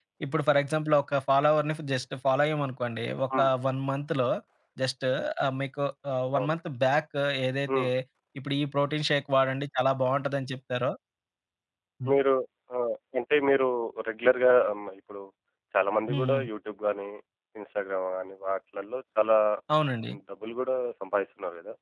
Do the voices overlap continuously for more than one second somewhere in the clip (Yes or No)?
No